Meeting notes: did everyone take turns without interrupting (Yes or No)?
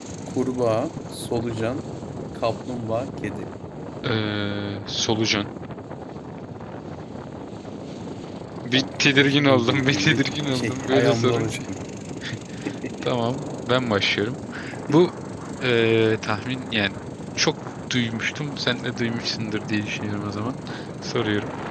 No